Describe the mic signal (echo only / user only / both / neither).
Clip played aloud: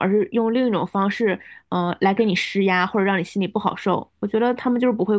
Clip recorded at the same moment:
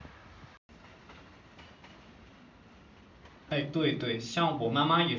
user only